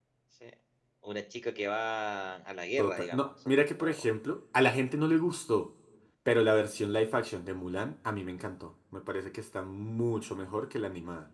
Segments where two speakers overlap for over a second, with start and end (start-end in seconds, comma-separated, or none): 2.8-4.0